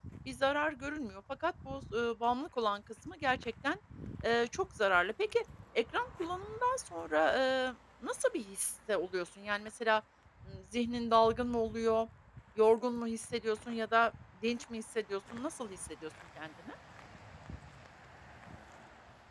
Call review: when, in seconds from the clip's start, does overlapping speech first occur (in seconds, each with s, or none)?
none